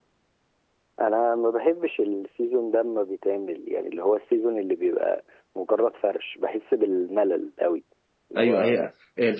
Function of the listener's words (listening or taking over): taking over